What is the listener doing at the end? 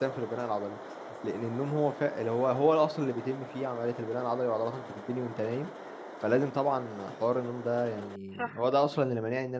listening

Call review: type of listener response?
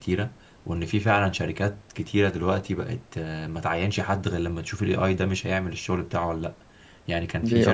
listening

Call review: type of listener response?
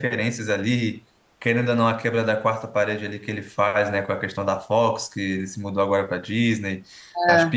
listening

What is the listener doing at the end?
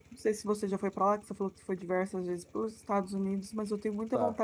listening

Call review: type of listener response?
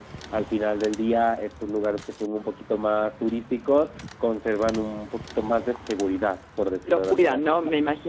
taking over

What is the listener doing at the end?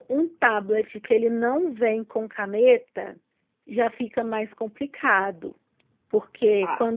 listening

